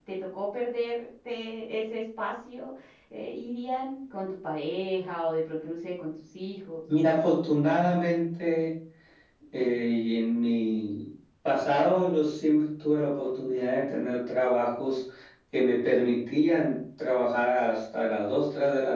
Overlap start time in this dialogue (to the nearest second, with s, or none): none